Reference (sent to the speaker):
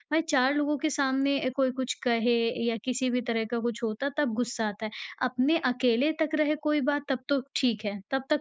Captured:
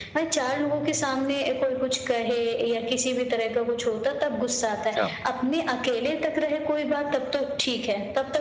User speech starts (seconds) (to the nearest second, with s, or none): 5 s